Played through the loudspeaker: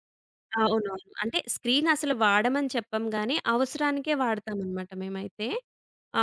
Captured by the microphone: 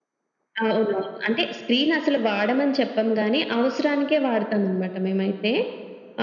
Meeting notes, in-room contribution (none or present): none